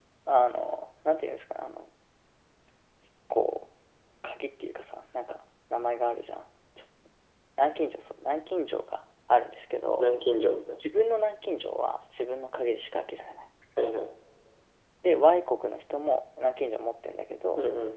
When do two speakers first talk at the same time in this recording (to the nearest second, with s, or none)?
none